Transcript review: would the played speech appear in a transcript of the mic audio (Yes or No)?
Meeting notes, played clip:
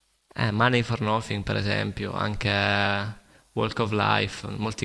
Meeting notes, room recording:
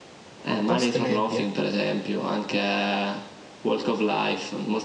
Yes